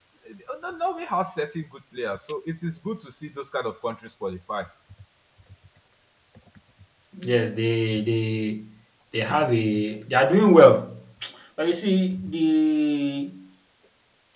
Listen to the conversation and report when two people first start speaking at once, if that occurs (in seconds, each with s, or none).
none